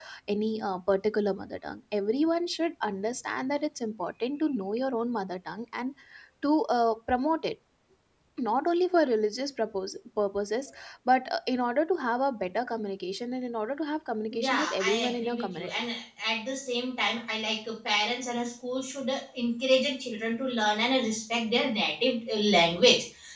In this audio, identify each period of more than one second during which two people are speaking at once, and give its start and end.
14.4-15.8

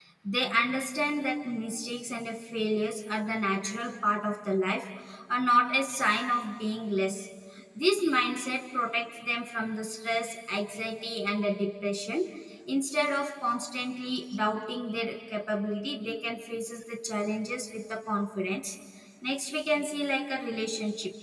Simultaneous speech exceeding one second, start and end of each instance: none

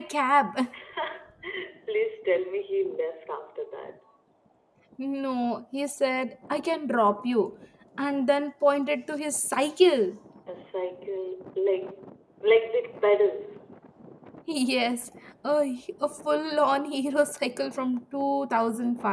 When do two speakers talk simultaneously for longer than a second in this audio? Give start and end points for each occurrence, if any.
none

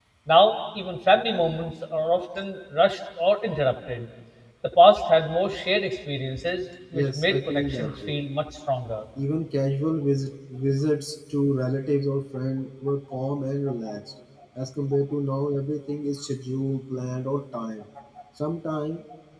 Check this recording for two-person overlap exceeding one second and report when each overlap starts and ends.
6.9-8.2

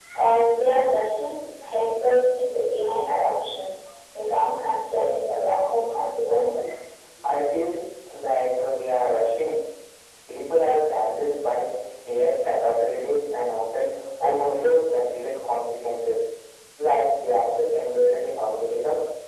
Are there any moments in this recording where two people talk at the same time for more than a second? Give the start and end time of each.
none

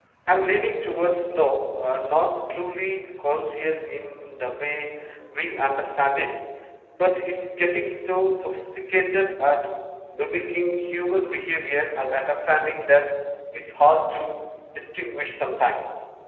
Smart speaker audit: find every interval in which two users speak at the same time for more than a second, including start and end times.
none

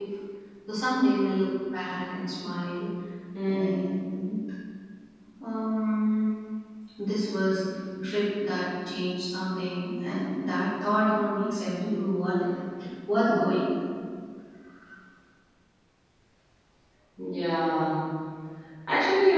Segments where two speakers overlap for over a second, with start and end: none

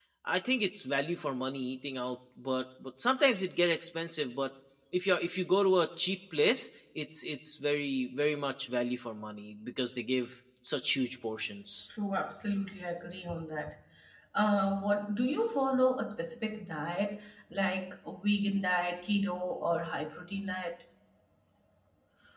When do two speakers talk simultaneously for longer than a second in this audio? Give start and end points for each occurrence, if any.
none

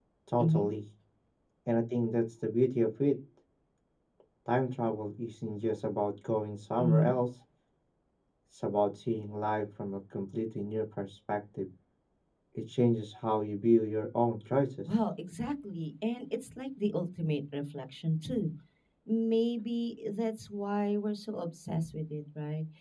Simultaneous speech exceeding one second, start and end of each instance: none

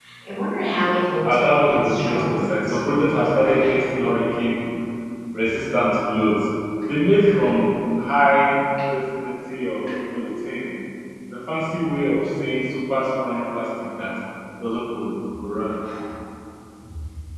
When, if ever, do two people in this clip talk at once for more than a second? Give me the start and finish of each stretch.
1.2-2.8

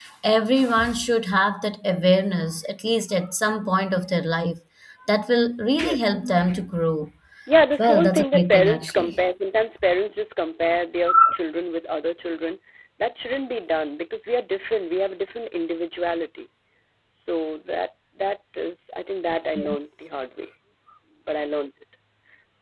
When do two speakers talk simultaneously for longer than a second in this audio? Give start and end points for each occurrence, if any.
7.8-9.2

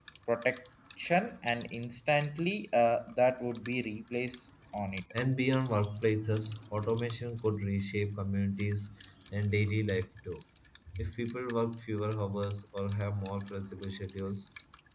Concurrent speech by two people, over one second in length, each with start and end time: none

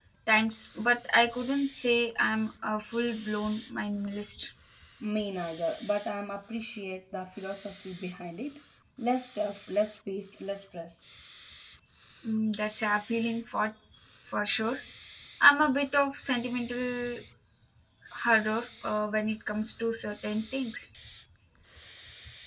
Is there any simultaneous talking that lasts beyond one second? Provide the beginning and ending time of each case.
none

